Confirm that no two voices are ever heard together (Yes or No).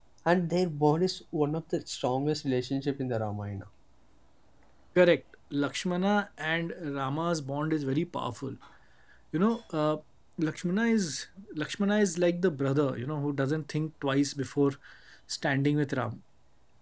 Yes